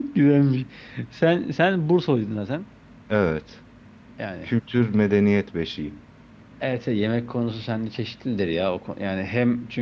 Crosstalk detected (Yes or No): No